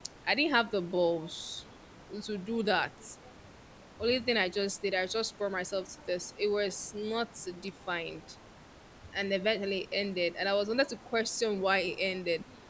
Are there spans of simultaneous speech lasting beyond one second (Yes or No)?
No